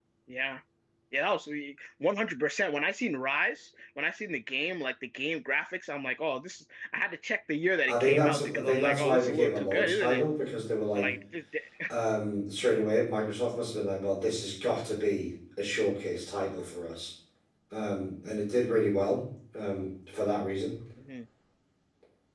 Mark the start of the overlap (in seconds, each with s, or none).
7.9 s